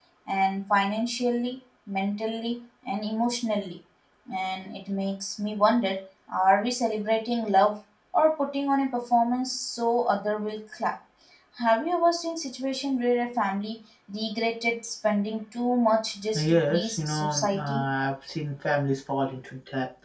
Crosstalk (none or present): present